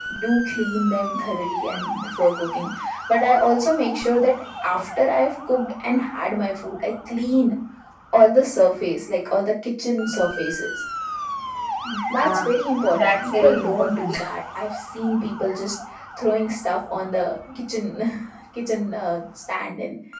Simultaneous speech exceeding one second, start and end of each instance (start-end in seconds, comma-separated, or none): 12.9-14.2